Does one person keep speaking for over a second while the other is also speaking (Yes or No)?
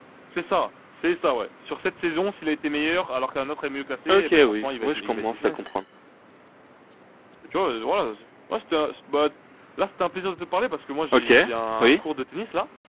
Yes